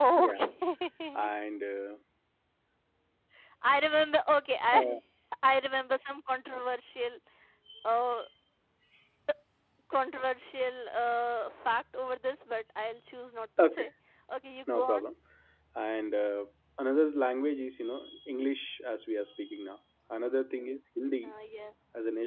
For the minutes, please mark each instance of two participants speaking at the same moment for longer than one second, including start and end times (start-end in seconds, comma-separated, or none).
none